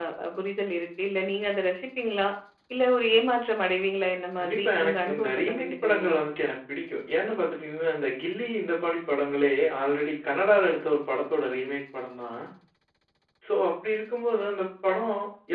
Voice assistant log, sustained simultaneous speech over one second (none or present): present